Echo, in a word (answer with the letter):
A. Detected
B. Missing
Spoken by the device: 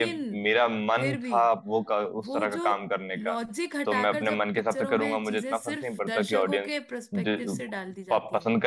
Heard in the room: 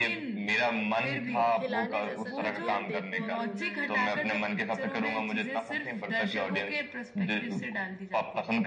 A